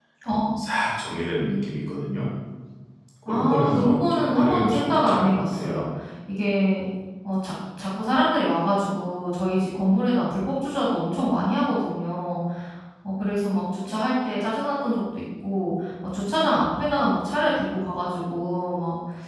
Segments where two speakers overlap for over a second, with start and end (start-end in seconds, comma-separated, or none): 3.2-5.9